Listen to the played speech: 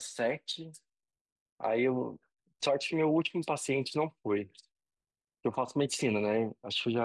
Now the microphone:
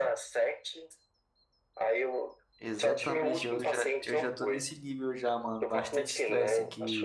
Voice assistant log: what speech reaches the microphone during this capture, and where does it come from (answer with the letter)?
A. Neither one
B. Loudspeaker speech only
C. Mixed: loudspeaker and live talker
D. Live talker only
C